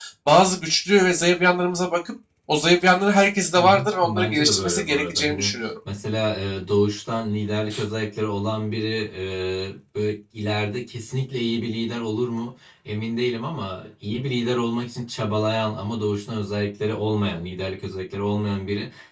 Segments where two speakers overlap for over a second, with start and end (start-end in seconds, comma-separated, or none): 3.6-5.6